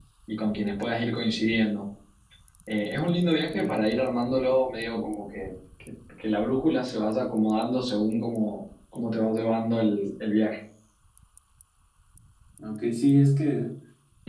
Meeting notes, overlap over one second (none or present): none